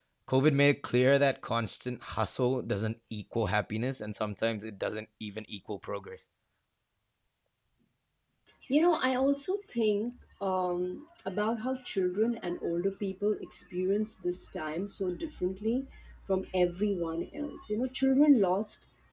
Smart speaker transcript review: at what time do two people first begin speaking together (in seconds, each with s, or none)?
none